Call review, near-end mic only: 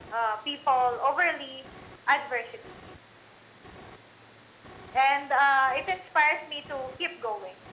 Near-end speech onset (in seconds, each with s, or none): none